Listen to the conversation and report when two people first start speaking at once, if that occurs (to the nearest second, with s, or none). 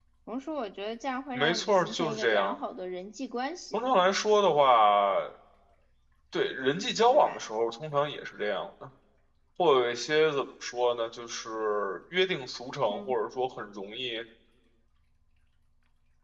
1 s